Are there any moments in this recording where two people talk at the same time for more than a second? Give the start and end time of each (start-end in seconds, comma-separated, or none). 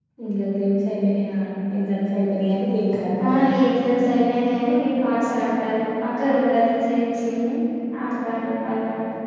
none